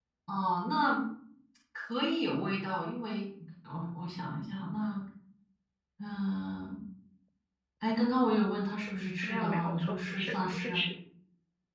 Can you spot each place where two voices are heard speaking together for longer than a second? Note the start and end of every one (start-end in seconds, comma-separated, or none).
9.2-10.8